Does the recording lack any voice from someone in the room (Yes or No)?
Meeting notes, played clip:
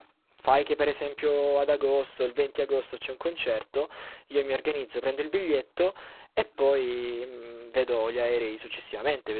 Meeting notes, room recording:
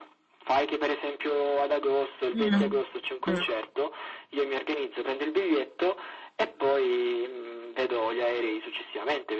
No